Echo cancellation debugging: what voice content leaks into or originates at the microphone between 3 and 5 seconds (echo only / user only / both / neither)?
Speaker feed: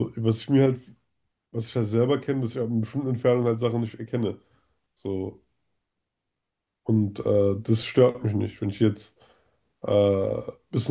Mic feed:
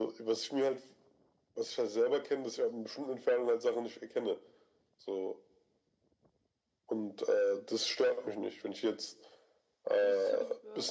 echo only